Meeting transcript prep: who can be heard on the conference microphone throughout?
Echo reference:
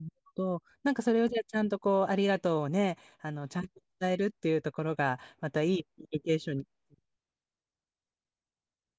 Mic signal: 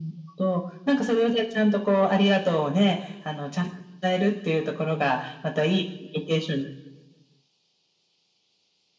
echo only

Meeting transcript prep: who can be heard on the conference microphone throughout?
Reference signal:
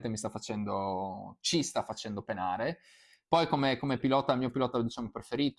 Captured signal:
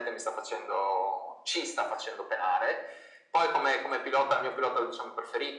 echo only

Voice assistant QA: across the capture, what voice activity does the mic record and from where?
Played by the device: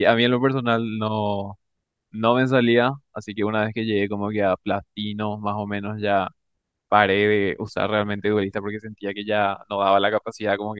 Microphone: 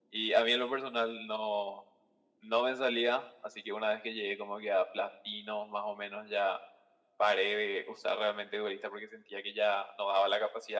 echo only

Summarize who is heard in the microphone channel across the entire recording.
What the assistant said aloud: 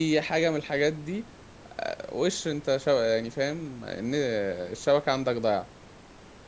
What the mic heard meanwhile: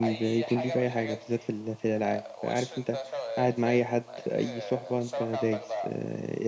both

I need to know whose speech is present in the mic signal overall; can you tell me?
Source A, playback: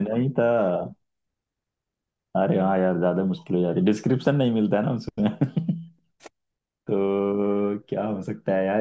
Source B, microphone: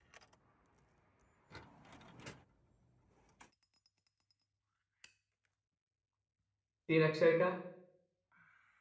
user only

